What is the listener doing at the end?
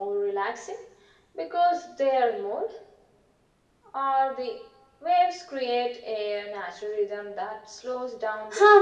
taking over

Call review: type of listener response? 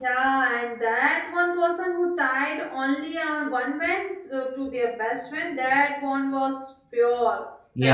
taking over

